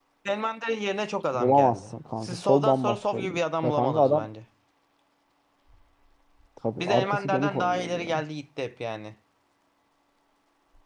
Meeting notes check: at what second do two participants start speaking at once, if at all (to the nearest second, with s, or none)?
1 s